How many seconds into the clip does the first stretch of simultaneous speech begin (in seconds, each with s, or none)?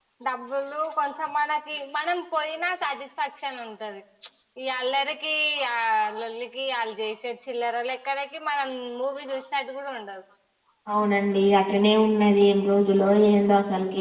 none